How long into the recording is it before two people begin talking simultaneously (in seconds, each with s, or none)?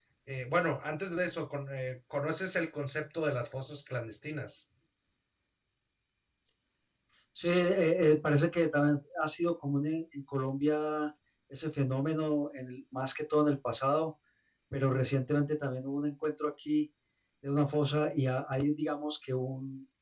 none